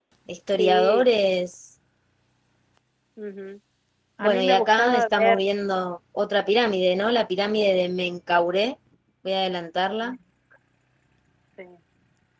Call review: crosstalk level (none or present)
present